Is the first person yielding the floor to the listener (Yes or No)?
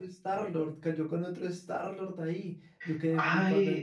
Yes